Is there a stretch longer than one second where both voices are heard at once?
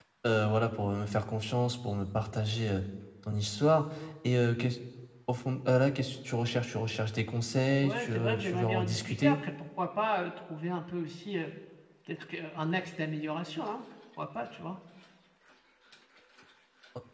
Yes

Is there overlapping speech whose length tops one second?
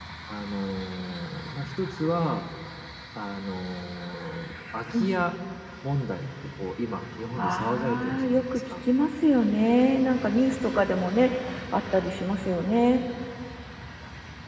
Yes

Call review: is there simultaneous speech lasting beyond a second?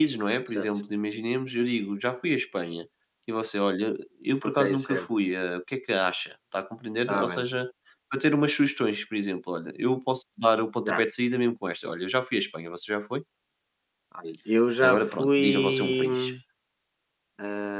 Yes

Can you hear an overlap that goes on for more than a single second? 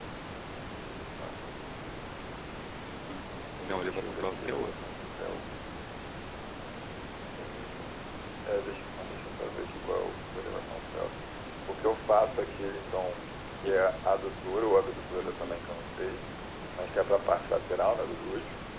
Yes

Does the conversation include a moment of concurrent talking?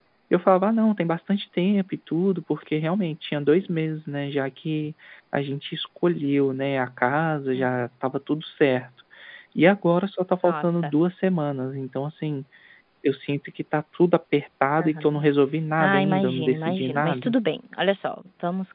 Yes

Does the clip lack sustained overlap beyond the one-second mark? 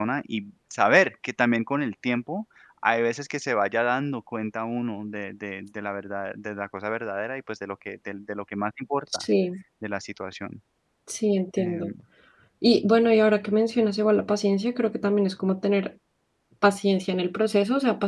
Yes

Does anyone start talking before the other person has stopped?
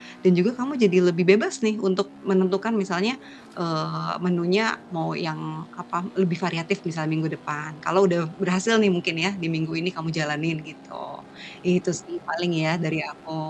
No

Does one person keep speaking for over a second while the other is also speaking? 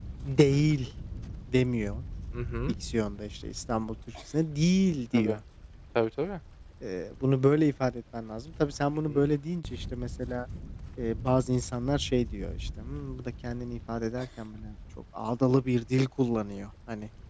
No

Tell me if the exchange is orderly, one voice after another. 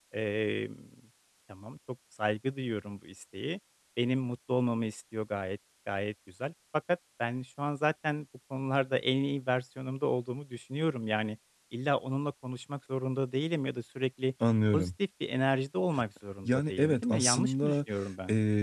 No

